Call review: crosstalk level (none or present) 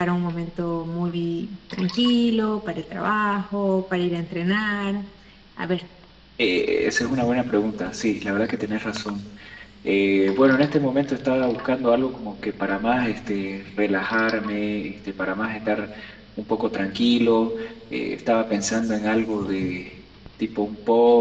none